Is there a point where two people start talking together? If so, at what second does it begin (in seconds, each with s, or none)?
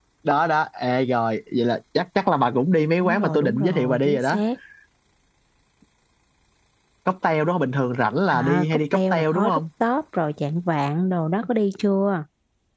3.0 s